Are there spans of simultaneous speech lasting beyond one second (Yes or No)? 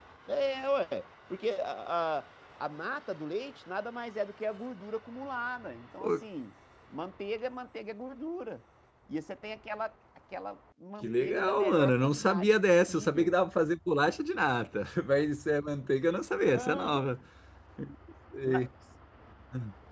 Yes